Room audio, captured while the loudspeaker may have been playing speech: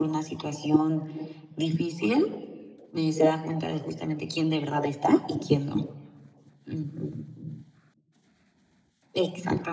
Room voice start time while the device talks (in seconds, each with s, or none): none